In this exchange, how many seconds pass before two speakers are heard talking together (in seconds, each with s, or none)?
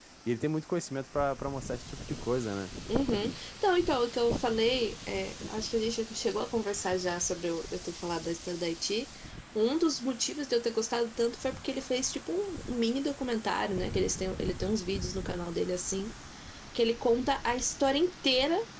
none